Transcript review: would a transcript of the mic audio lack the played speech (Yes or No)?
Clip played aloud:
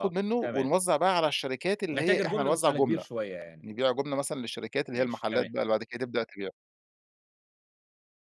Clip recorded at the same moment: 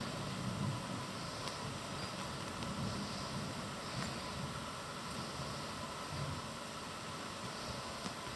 Yes